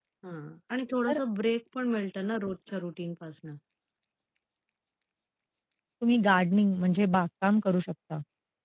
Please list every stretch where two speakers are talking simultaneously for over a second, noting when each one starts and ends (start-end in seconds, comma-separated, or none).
none